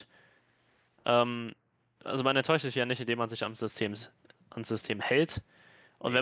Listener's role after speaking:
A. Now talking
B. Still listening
B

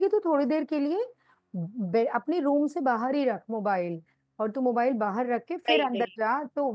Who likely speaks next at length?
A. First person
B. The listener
A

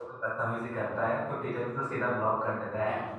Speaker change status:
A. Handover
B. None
A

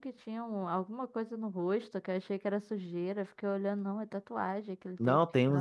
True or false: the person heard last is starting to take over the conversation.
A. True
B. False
A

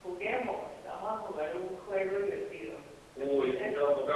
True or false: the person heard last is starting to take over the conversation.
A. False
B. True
B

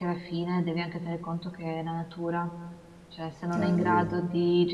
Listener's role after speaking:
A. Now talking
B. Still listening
B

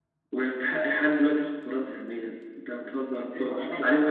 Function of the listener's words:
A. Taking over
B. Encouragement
B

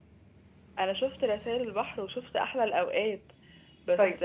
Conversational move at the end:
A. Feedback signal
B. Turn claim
A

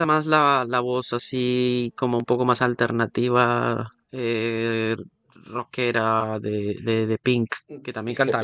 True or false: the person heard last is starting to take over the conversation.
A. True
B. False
A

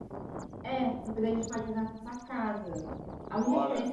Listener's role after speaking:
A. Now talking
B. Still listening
B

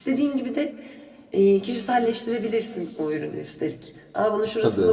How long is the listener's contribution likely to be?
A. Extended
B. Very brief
B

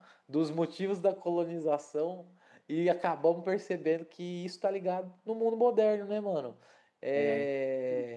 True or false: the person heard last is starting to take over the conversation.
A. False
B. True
A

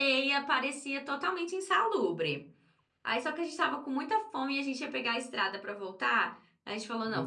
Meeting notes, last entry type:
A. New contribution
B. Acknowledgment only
B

